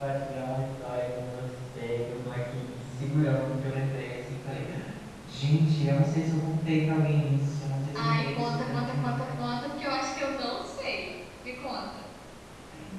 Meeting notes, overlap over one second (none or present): present